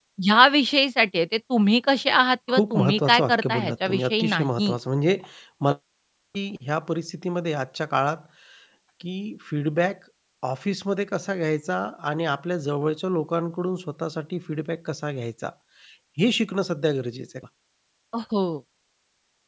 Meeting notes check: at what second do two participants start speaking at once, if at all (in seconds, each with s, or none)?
2.5 s